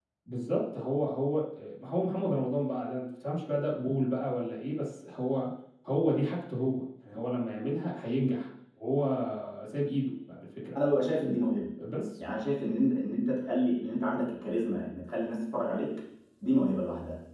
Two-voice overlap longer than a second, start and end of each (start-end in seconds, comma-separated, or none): none